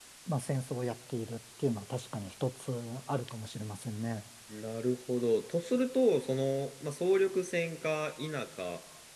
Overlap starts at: none

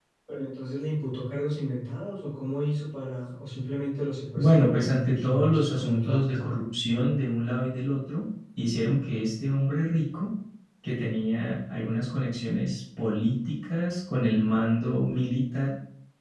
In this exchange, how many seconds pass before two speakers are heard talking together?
4.4 s

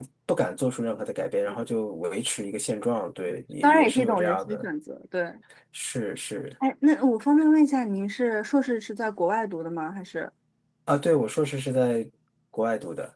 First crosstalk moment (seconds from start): 3.3 s

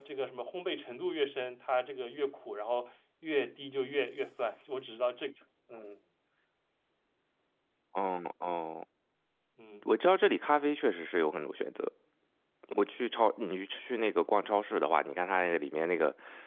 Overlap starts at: none

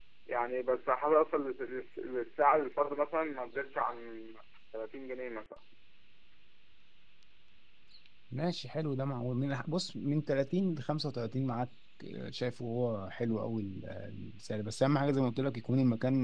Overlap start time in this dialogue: none

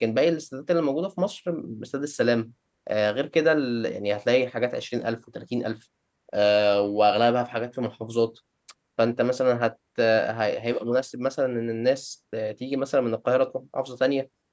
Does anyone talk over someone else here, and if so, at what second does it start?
none

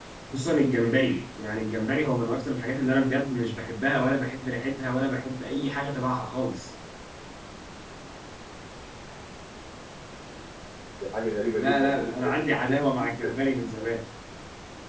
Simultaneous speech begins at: 11.6 s

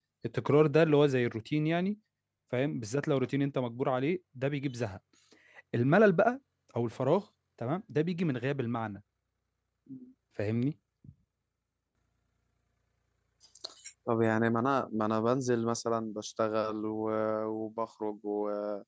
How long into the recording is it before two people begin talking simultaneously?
none

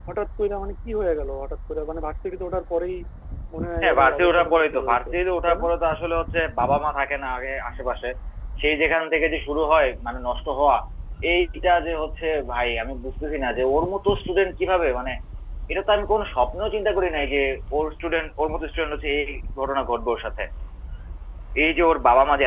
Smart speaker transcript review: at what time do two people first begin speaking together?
3.8 s

